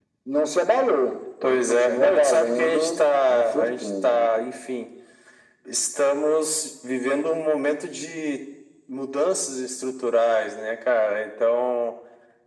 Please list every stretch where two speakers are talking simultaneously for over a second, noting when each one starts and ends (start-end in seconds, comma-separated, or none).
1.4-4.3